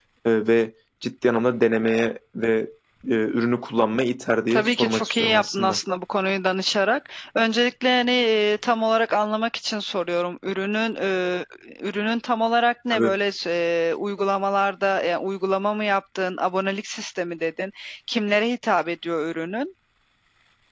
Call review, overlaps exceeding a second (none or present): present